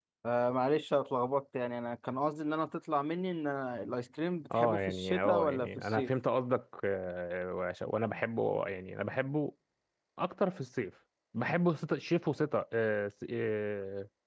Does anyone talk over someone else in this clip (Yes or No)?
Yes